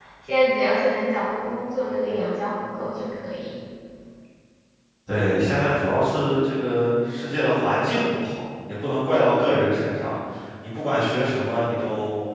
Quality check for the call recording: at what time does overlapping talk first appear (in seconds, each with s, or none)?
none